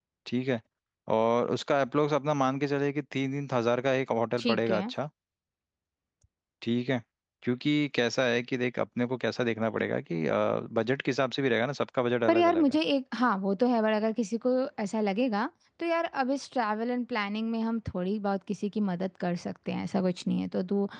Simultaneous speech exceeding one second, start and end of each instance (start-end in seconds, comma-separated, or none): none